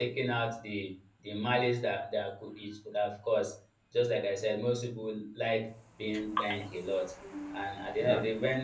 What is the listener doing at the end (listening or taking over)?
listening